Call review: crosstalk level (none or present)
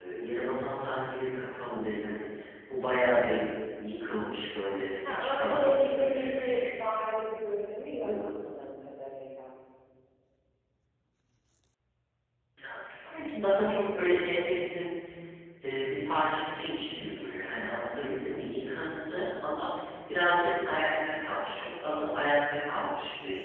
present